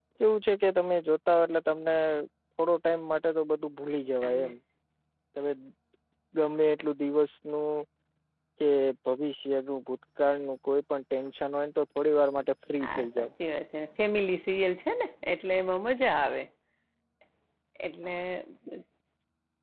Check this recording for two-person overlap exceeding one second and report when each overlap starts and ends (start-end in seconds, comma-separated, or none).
none